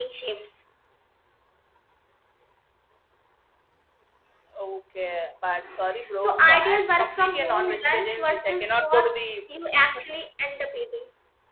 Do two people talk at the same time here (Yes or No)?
Yes